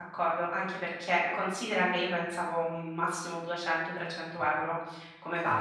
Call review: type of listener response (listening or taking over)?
taking over